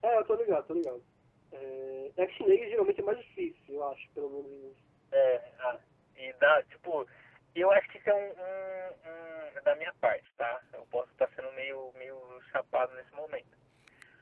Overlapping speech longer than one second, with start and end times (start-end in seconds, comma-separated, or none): none